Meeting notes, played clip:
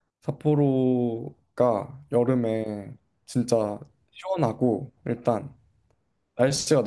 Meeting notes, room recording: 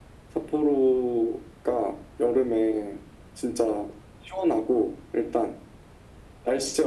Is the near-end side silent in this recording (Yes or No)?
Yes